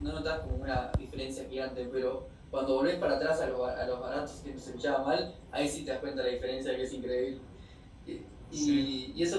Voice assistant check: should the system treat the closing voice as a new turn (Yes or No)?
No